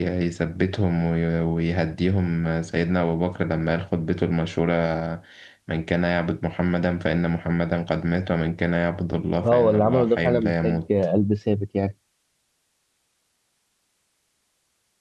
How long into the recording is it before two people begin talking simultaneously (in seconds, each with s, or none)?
9.4 s